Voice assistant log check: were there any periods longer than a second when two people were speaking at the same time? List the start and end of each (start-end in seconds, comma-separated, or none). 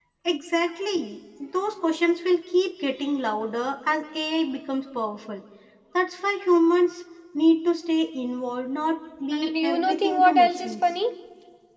9.3-10.7